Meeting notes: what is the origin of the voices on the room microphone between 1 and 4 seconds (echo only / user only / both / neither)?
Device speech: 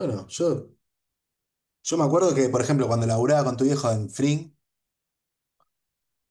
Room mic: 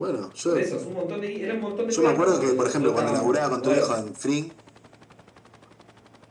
both